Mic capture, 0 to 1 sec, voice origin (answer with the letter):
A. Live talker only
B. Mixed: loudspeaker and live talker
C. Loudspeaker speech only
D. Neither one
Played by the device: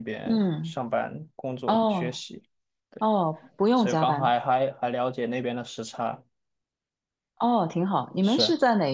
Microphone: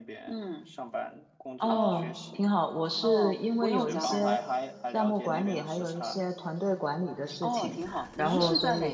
C